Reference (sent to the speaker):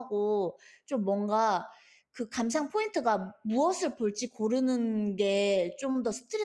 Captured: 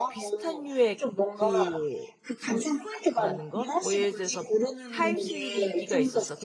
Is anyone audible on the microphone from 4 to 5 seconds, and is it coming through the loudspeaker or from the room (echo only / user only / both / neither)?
both